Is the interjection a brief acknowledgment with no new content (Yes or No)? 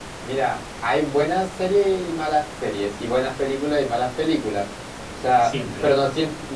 Yes